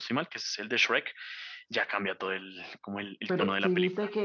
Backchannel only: No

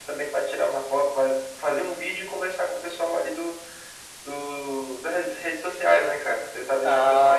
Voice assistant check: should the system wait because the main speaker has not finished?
Yes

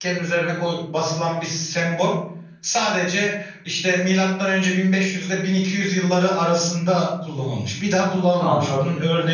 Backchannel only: Yes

